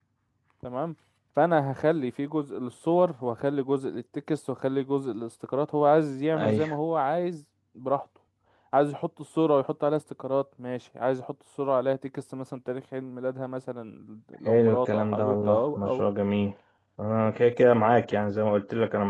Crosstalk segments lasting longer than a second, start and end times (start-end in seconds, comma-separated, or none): 14.4-16.0